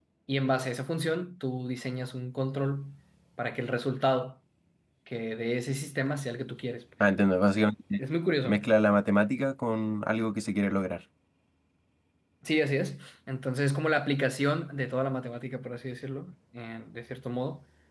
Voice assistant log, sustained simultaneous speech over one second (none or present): none